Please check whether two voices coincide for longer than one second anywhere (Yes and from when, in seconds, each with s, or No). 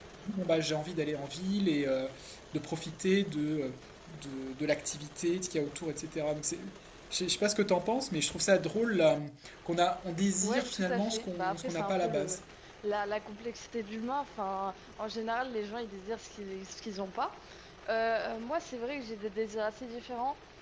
Yes, from 10.4 s